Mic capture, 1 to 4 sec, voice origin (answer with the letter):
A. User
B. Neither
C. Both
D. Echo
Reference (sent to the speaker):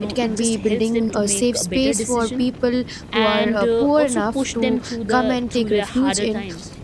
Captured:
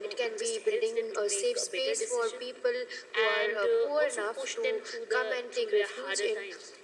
D